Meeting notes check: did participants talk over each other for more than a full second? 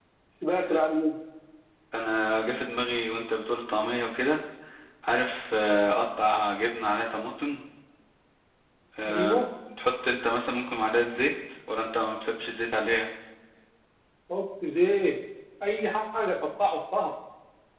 No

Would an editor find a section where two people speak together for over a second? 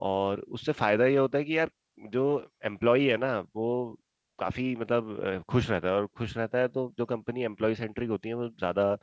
No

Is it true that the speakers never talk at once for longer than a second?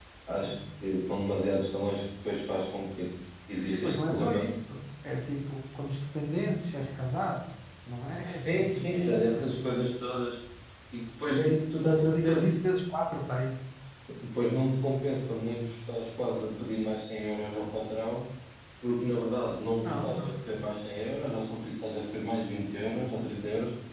No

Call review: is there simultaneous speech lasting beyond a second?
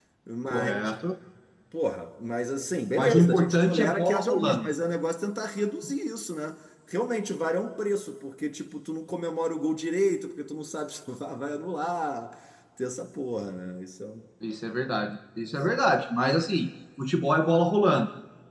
Yes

